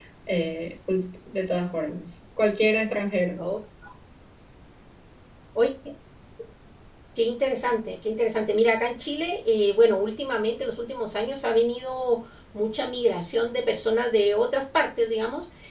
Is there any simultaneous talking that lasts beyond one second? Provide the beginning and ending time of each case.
none

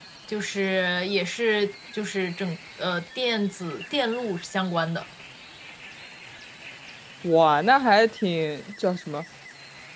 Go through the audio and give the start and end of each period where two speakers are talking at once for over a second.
none

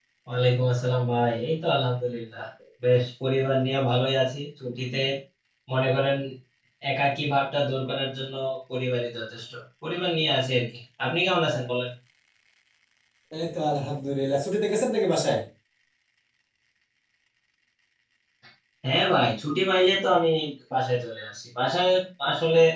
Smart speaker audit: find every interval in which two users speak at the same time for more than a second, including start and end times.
none

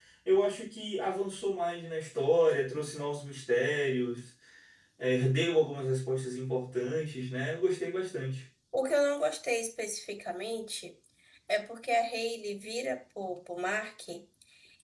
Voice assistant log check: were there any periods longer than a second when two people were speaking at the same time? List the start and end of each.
none

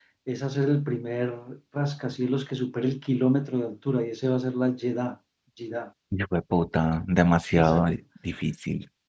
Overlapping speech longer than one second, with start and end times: none

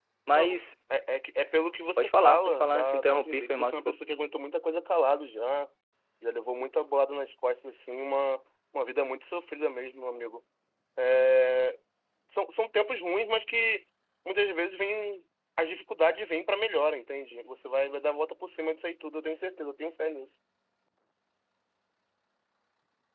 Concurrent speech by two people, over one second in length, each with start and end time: 2.0-3.9

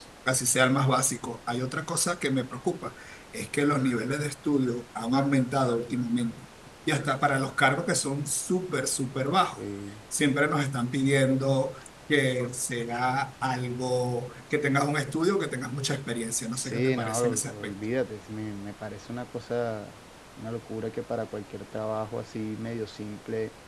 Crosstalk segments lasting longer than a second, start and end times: 16.5-17.8

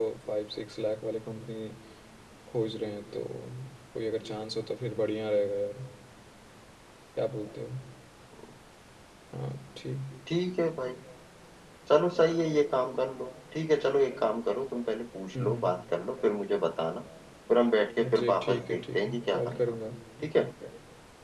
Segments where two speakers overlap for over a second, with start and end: 18.0-19.8

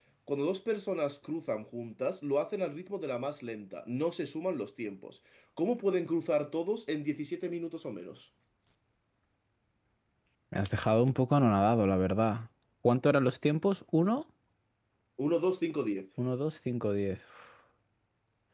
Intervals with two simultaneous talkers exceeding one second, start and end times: none

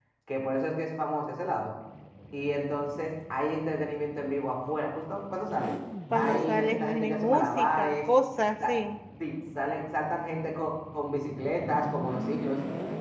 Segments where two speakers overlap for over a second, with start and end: 6.1-8.0

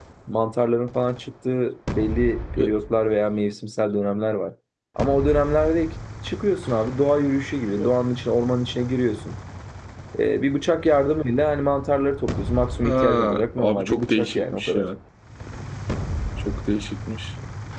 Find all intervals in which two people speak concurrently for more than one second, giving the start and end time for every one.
12.8-14.9

